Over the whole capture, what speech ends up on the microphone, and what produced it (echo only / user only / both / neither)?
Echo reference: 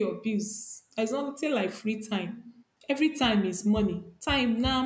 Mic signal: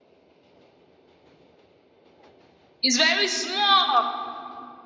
user only